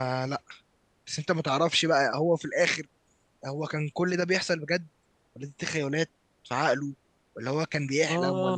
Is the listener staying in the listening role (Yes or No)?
Yes